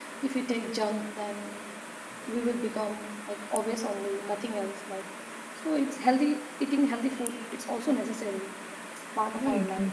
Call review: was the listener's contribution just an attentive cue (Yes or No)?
No